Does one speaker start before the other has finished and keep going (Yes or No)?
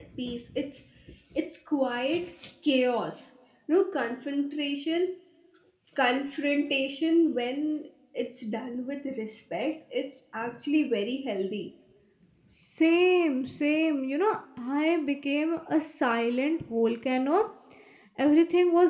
No